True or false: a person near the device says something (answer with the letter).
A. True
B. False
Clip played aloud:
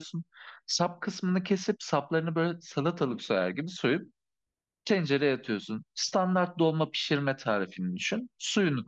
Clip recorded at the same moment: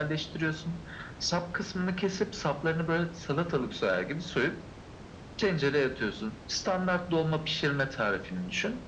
B